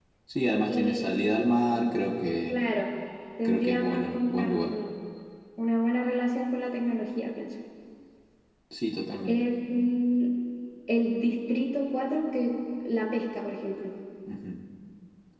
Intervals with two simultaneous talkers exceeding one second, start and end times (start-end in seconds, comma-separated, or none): 3.4-4.7